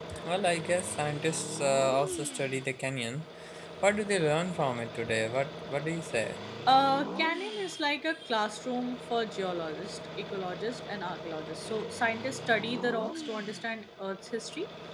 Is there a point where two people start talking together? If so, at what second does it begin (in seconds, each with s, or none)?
none